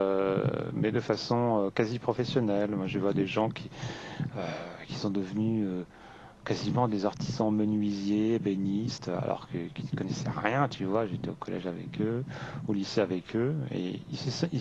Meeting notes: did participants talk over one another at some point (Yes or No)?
No